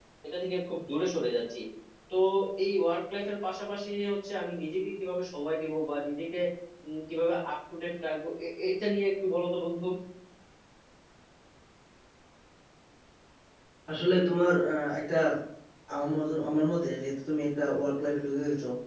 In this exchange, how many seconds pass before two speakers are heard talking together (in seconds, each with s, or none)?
none